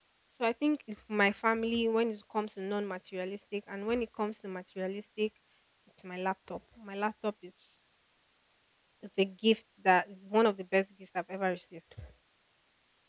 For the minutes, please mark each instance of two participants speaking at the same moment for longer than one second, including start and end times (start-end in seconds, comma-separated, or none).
none